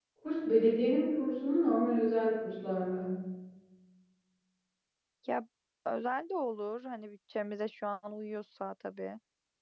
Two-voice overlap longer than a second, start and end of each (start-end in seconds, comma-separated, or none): none